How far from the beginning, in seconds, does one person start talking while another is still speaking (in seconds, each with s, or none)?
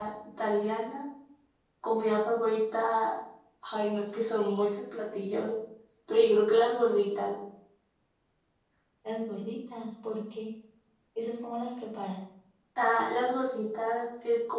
none